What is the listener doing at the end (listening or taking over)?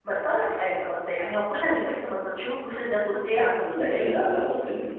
taking over